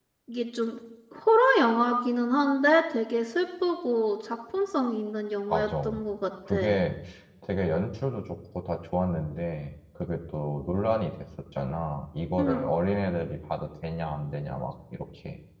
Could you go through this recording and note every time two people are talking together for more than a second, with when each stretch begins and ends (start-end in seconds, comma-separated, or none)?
none